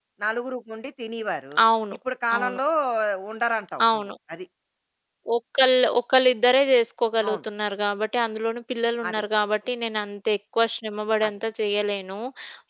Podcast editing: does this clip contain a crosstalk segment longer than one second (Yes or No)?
No